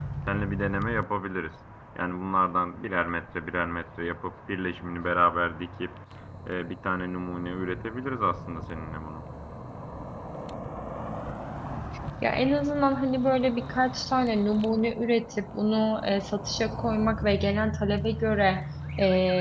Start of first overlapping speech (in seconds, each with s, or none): none